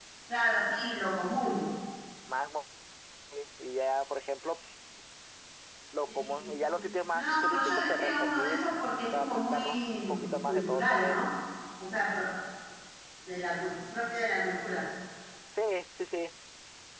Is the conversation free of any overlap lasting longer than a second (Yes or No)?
No